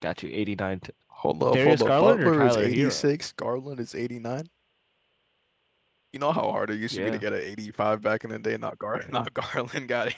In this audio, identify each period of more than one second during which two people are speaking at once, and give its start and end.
1.5-3.1

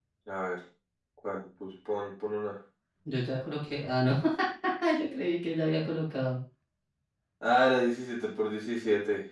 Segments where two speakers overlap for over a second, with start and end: none

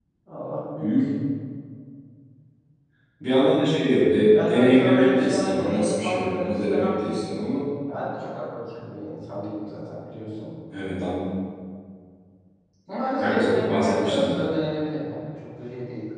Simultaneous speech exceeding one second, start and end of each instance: 4.3-7.0, 13.2-14.4

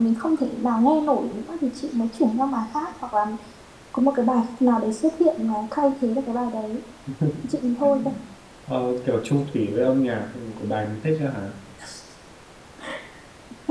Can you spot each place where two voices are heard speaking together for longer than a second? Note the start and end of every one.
none

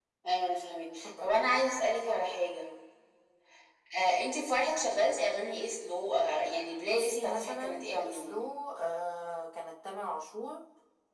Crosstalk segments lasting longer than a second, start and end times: 6.9-8.4

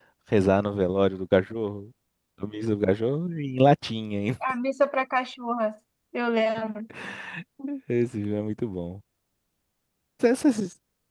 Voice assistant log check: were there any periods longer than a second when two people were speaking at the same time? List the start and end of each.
none

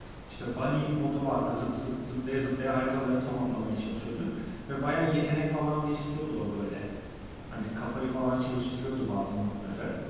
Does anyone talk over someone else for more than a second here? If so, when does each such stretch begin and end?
none

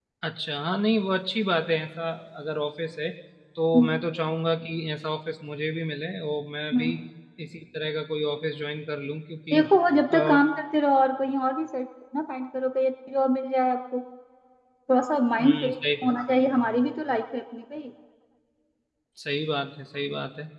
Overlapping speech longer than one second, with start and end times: none

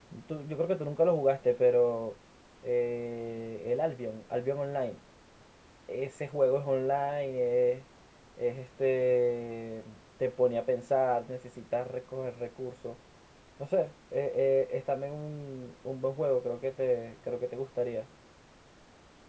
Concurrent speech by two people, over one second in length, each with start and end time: none

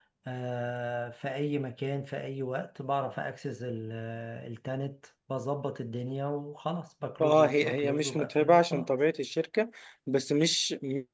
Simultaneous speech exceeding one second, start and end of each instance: 7.2-8.9

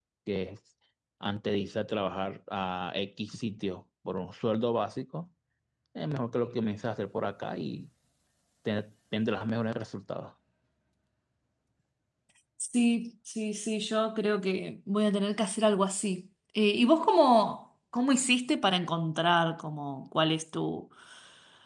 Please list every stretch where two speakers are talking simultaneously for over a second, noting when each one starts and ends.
none

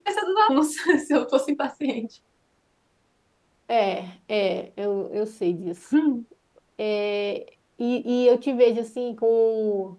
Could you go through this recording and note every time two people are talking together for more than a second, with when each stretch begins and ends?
none

